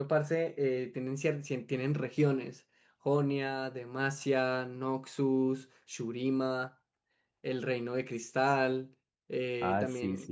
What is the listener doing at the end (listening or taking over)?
taking over